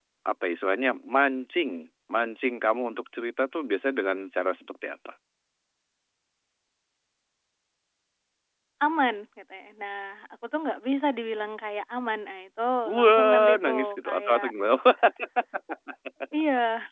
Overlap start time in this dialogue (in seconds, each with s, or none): 12.8 s